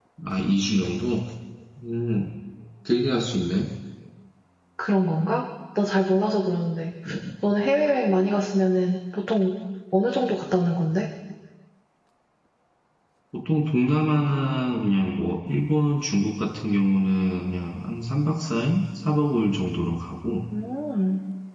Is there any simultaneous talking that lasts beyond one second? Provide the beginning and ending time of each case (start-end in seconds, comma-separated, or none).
none